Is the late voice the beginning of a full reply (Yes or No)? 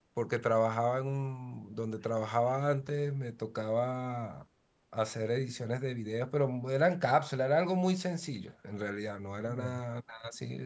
No